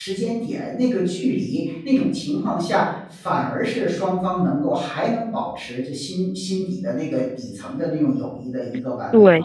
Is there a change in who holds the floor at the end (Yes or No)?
Yes